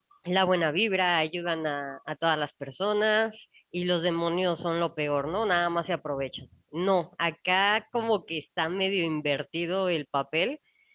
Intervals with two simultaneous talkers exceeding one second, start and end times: none

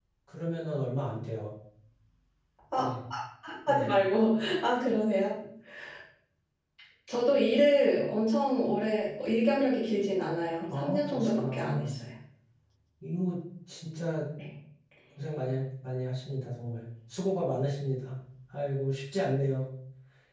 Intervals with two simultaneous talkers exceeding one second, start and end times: 10.7-11.9

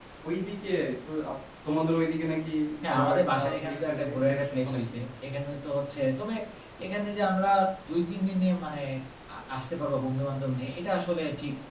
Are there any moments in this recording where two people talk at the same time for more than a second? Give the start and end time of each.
2.9-4.8

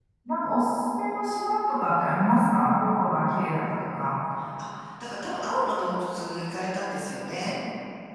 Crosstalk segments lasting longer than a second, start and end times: none

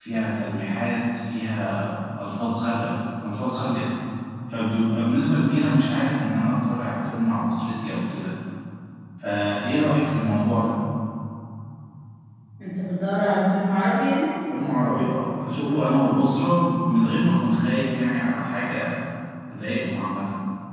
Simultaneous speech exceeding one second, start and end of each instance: none

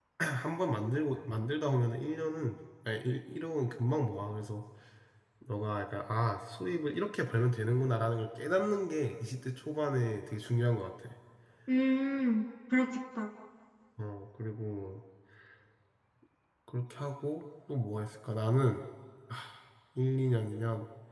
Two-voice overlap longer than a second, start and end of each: none

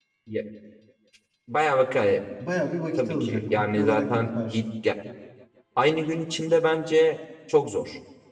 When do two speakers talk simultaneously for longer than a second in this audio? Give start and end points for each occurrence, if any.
3.0-4.6

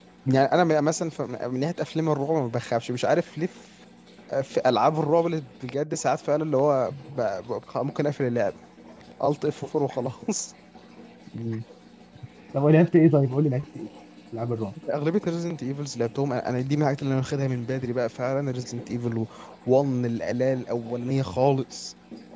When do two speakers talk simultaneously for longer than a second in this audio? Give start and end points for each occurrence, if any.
none

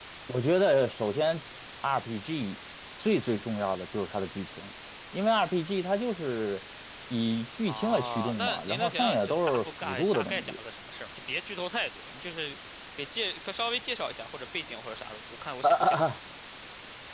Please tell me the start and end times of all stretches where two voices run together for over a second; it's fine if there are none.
7.7-10.6

